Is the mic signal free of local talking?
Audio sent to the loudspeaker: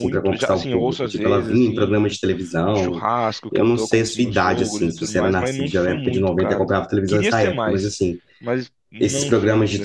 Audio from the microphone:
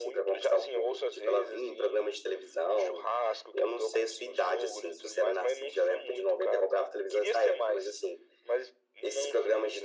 Yes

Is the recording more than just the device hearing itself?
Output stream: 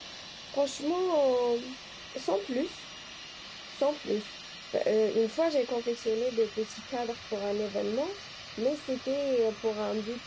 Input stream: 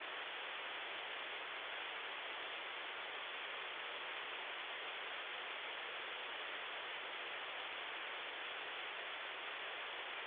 No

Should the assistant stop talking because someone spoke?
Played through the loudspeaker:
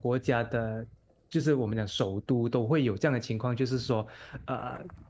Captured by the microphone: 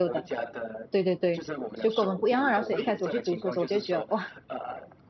Yes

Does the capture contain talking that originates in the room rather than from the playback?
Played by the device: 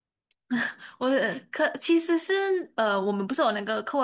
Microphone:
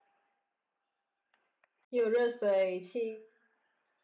Yes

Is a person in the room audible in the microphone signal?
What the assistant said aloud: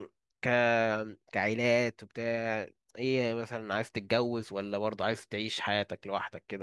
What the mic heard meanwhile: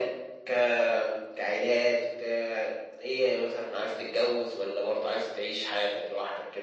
No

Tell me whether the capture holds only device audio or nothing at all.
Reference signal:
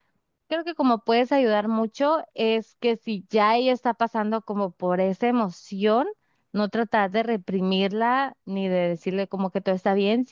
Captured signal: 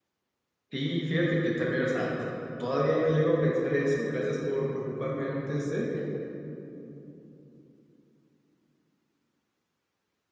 No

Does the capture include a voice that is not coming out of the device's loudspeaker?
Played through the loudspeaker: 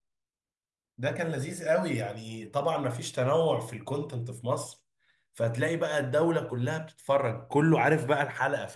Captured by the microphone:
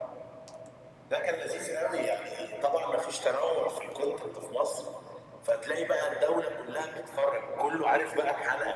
No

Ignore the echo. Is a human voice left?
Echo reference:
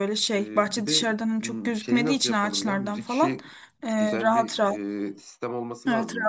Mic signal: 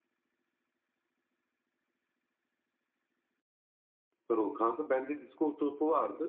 Yes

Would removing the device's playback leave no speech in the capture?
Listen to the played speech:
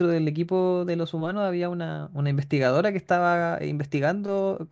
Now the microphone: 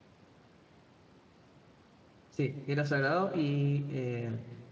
No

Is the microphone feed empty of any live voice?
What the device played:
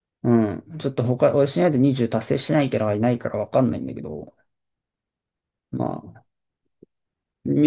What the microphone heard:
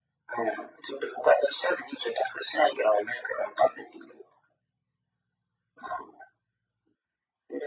Yes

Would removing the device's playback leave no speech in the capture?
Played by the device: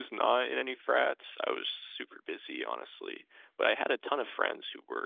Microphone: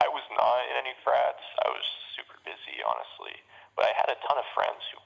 Yes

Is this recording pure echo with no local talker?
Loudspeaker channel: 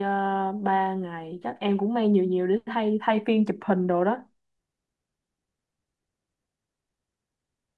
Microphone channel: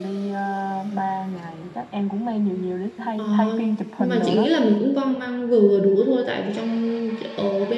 No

